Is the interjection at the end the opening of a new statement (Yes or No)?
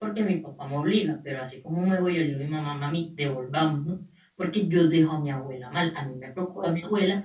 No